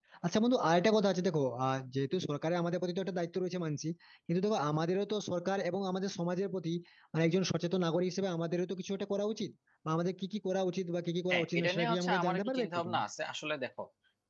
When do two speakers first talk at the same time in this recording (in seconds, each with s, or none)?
11.3 s